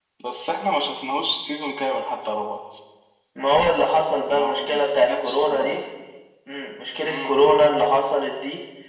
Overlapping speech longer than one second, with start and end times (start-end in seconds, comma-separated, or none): 4.3-5.8